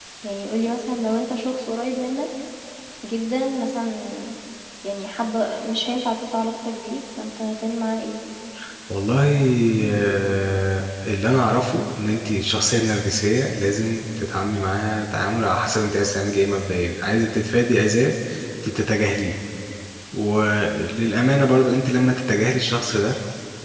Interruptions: none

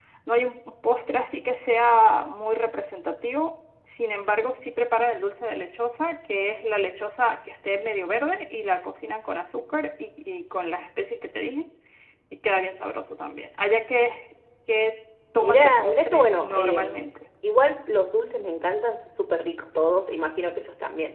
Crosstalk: present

